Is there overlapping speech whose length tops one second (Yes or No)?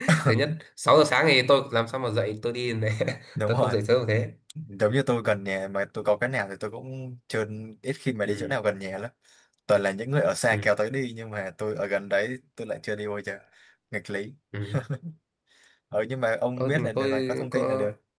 Yes